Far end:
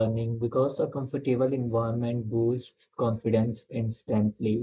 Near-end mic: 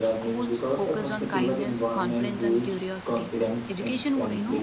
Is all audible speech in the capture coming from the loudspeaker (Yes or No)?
No